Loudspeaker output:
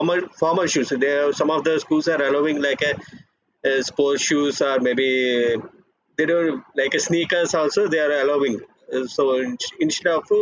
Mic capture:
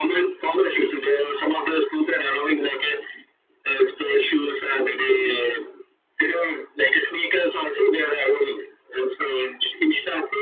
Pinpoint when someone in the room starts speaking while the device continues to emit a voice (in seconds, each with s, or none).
none